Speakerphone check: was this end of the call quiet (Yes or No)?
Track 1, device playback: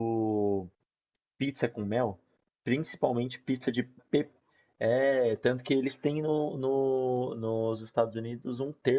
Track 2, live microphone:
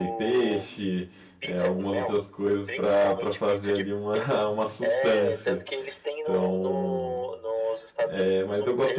No